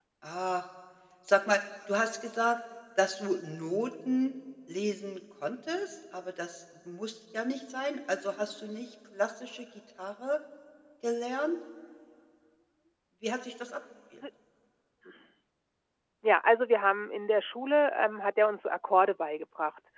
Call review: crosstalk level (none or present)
none